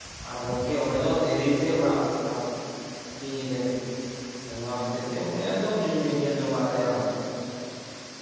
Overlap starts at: none

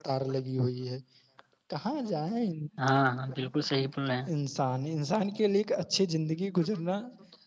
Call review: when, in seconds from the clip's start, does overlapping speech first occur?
none

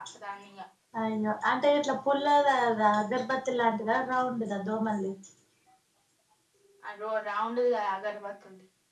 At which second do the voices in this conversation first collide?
none

